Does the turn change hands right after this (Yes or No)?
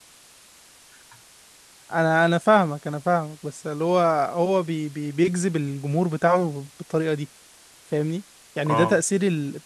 No